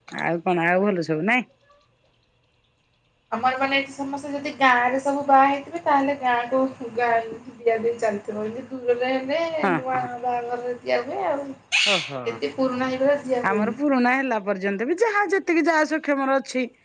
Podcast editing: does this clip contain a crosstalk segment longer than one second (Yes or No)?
No